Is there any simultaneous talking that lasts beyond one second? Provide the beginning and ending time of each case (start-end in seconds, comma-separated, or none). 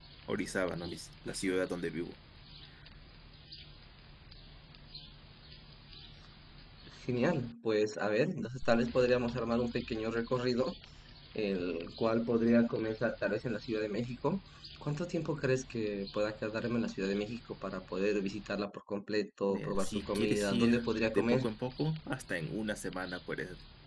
19.5-20.8